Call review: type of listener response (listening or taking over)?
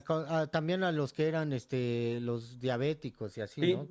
taking over